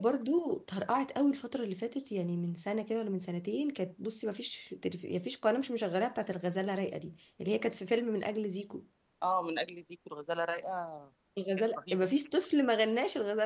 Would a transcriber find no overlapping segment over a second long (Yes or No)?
Yes